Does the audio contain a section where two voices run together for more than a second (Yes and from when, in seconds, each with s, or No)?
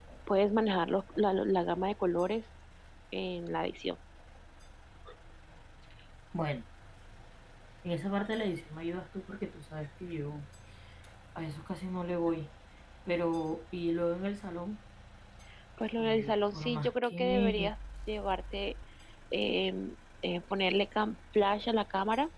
Yes, from 16.0 s